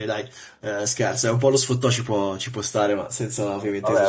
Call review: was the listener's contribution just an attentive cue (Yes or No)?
No